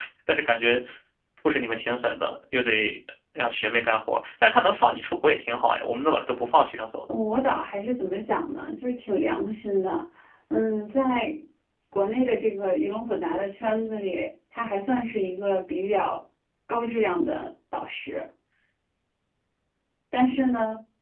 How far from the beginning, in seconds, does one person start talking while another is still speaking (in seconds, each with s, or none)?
none